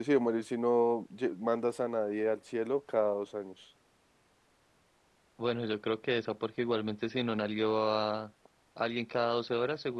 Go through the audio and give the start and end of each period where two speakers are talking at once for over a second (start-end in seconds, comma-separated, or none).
none